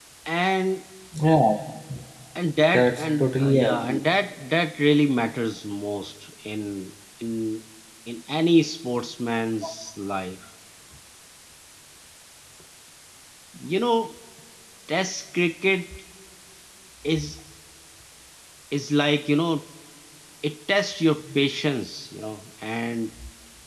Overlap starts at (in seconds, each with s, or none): 2.7 s